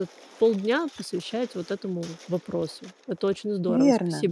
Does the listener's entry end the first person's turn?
Yes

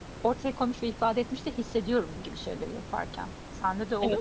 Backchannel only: No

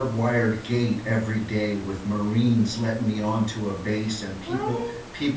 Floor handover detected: No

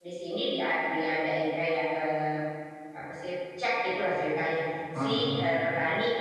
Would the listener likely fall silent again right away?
Yes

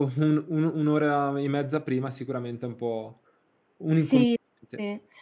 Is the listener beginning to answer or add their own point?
Yes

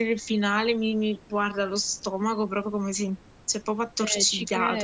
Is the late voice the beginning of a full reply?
Yes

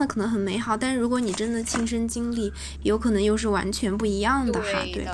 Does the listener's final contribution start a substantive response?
Yes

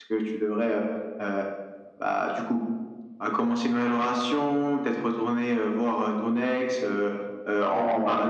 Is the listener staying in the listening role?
No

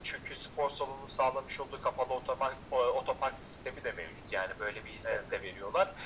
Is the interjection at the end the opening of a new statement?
No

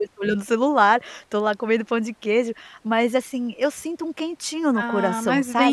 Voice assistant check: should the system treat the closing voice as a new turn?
Yes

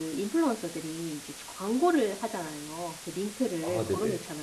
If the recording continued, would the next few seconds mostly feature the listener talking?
No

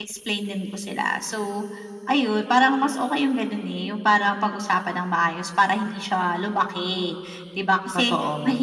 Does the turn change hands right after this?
No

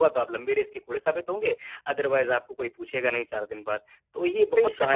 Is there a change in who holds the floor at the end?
Yes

